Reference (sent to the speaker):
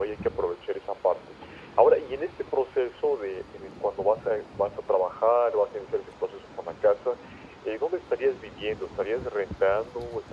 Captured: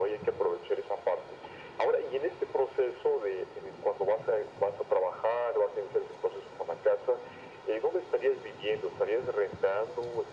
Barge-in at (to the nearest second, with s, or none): none